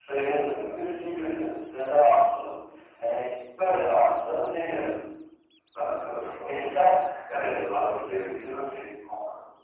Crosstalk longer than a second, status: none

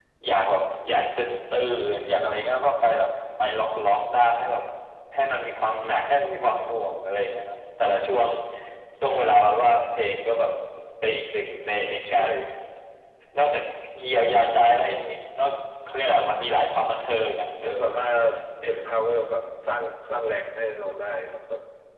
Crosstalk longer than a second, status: none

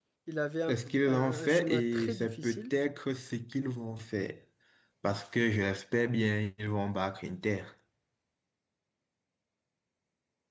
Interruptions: present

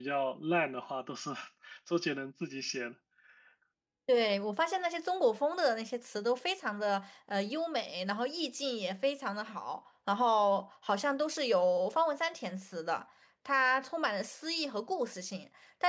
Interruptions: none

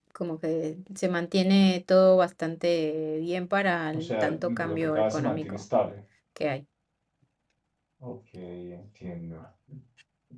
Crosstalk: present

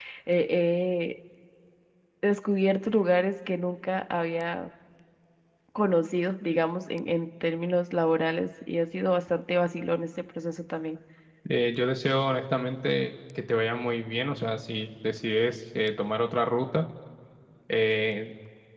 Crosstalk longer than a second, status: none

